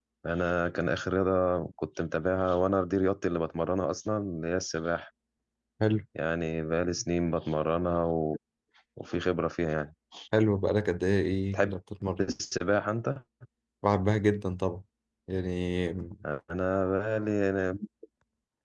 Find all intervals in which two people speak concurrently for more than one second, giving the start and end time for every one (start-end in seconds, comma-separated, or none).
none